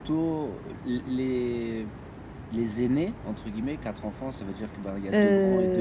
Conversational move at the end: taking over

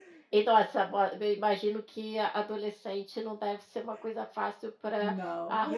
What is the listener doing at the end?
listening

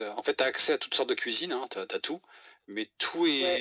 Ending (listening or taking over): taking over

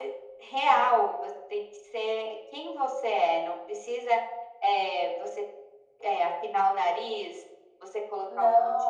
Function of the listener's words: listening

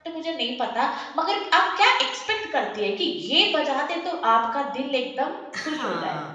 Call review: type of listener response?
taking over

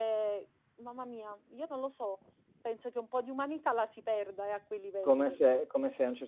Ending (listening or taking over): taking over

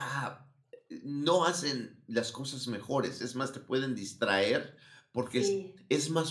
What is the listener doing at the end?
listening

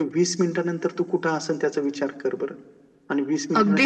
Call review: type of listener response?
taking over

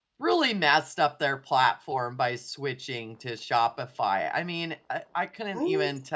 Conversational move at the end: listening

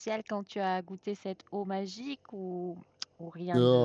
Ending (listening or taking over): taking over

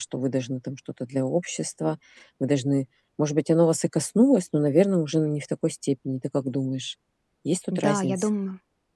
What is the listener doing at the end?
taking over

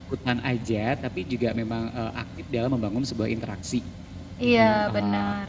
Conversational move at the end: taking over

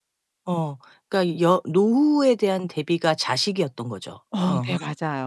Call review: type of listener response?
taking over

